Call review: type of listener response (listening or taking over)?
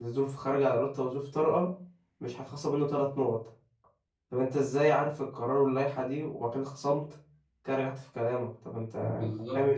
taking over